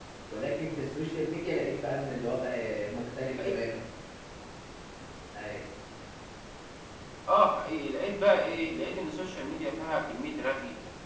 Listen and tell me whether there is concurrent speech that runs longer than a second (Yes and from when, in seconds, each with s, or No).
No